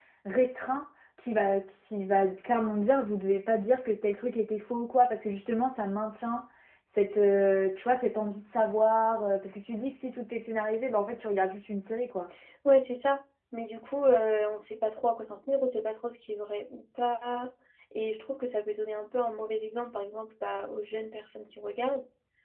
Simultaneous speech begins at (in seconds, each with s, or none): none